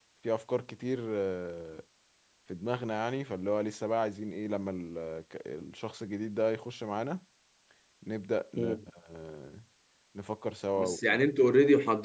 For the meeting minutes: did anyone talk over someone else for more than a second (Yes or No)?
No